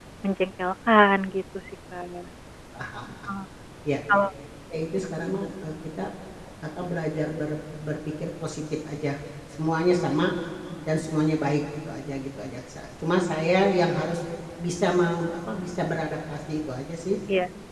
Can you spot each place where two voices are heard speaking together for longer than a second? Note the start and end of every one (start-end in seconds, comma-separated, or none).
none